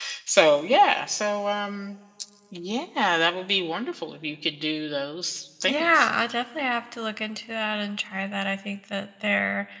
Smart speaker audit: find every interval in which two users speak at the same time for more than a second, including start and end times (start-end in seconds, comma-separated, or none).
none